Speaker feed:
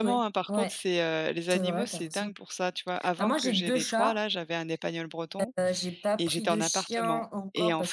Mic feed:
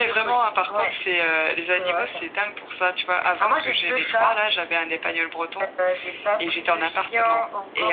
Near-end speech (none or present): none